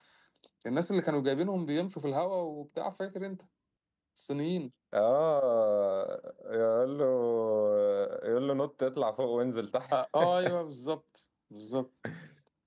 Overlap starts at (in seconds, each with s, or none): none